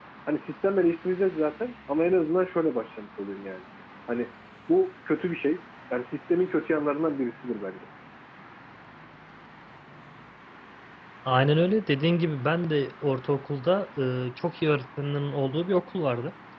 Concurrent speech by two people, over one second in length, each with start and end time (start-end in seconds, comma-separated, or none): none